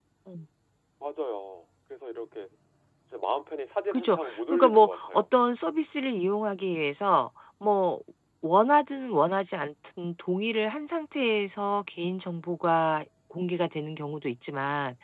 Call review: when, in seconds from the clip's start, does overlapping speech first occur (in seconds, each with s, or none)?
3.9 s